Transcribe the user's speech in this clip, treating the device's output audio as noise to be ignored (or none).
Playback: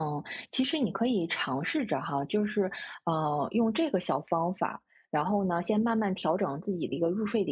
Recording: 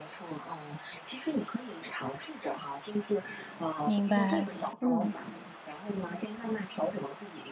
明白，嗯。